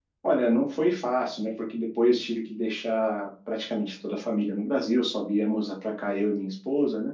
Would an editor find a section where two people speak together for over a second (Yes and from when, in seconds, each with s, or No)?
No